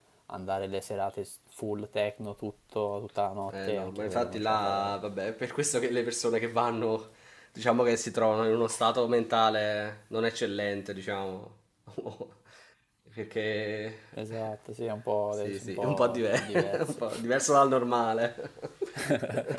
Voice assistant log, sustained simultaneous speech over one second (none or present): present